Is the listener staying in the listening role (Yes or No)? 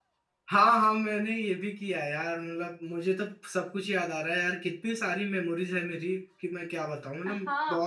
No